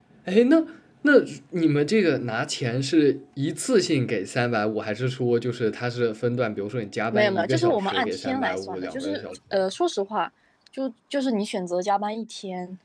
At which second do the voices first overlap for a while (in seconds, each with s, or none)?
7.1 s